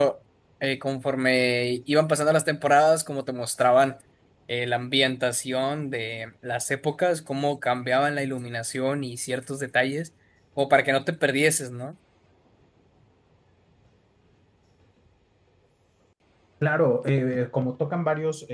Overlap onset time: none

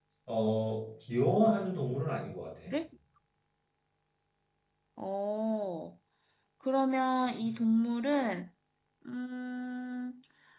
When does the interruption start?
none

